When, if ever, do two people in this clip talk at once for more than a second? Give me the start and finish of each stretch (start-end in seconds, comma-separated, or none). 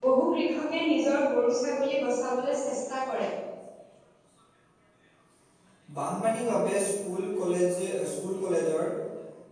none